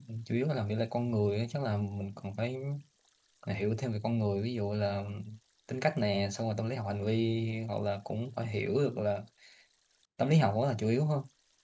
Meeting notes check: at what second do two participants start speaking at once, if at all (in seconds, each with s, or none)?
none